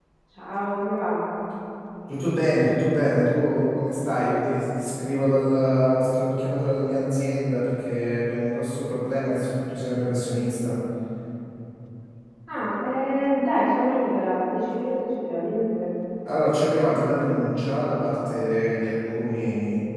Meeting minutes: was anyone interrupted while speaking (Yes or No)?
No